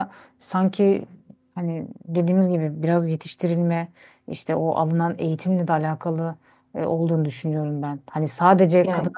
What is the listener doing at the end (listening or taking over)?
listening